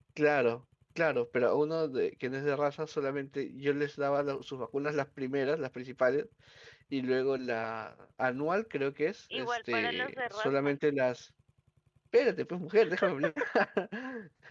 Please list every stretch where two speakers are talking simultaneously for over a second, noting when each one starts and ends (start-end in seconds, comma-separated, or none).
9.3-10.8